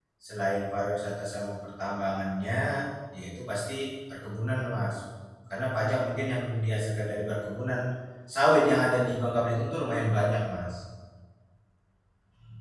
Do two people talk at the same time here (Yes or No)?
No